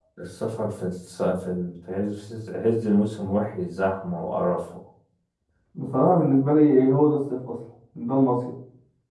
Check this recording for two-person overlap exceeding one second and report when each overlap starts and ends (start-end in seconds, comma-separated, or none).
none